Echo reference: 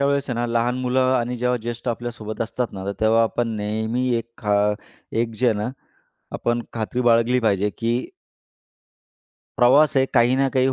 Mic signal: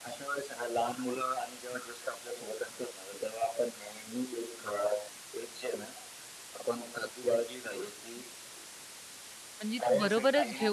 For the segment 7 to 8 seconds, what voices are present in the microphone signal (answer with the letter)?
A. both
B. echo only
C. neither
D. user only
B